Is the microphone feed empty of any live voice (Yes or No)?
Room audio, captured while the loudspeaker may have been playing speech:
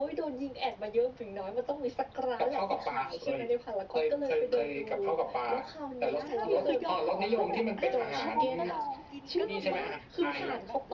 No